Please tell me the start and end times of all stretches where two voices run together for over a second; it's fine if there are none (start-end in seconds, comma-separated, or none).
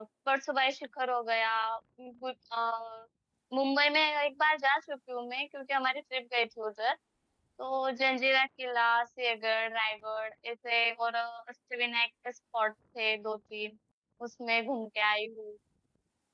none